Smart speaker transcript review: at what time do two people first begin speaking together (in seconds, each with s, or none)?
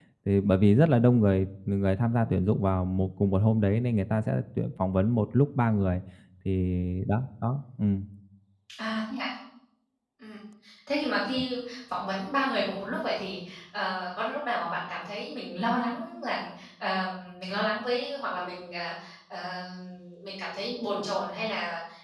none